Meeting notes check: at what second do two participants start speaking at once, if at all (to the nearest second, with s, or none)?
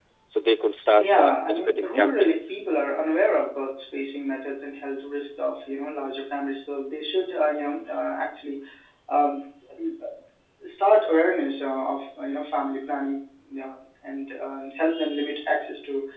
1 s